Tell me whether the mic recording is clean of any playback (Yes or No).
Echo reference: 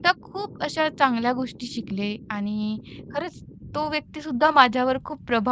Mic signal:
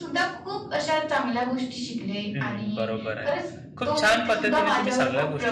No